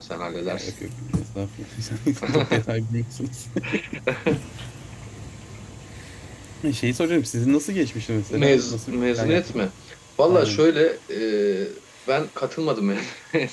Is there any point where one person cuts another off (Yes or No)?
Yes